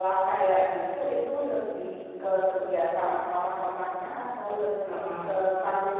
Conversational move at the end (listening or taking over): listening